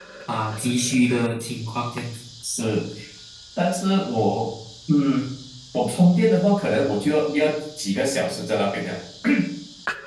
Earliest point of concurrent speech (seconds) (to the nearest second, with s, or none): none